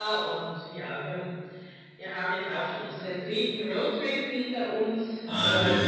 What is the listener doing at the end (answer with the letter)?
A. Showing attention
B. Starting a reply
B